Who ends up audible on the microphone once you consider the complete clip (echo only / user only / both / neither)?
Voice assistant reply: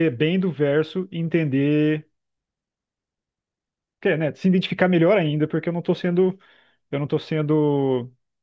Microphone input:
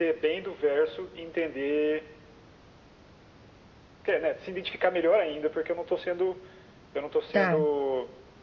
both